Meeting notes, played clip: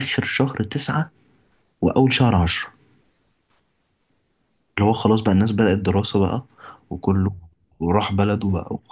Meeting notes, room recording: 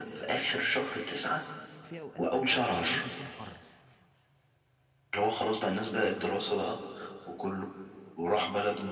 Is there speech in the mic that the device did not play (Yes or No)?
Yes